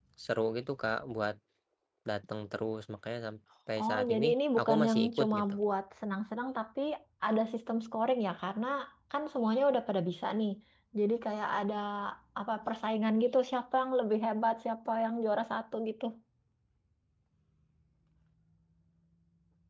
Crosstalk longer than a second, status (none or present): present